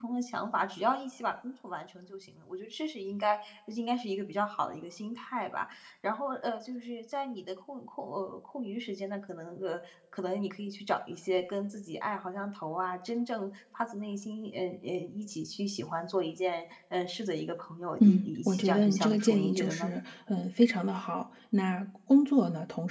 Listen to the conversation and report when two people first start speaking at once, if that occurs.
18 s

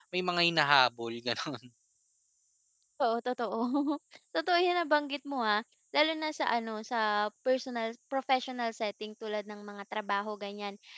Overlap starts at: none

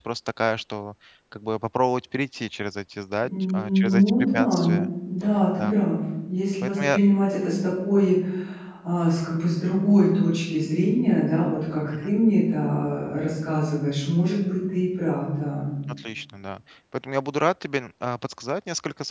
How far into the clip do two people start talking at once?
3 s

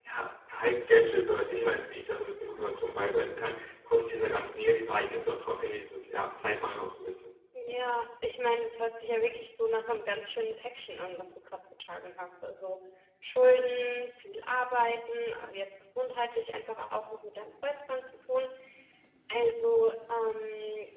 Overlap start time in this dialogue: none

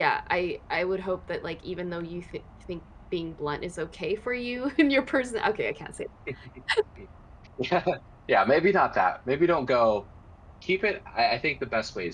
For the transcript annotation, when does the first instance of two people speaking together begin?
none

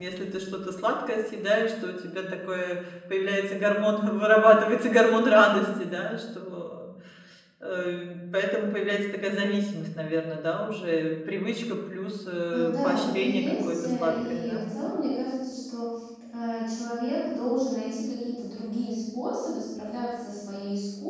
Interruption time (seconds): 13 s

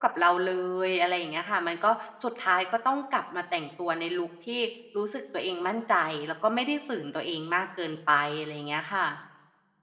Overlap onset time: none

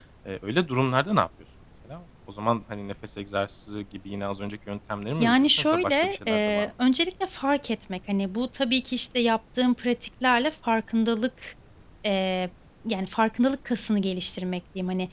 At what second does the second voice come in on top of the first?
5 s

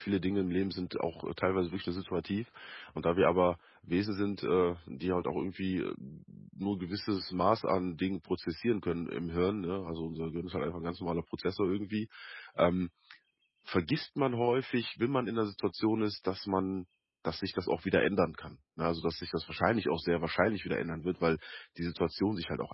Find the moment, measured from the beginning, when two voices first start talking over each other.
none

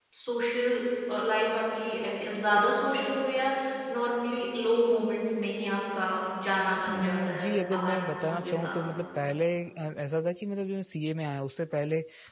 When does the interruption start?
7 s

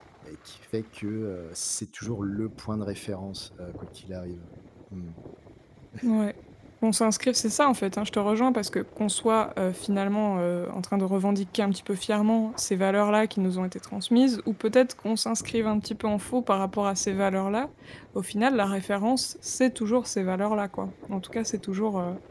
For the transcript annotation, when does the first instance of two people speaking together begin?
none

